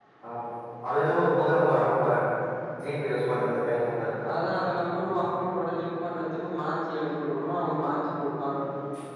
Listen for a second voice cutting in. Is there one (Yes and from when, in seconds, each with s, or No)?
No